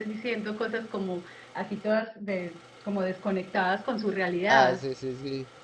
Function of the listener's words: taking over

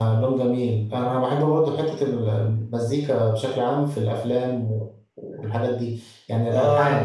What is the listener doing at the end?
taking over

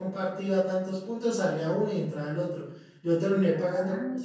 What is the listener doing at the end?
listening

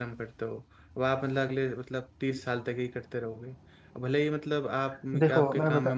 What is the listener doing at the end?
taking over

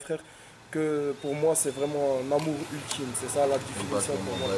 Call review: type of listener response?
taking over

